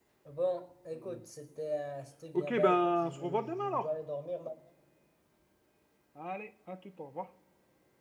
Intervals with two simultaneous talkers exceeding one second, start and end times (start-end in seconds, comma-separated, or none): 2.3-3.9